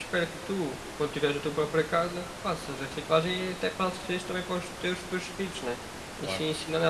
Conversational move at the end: listening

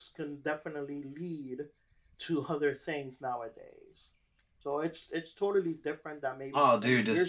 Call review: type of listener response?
taking over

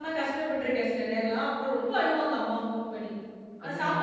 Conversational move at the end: listening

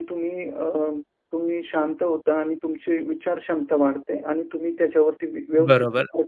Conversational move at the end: taking over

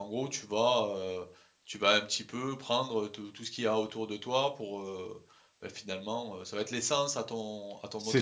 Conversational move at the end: taking over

